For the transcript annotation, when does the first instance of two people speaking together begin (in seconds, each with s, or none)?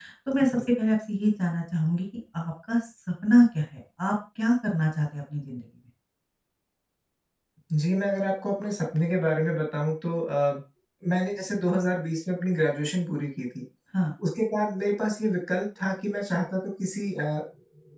none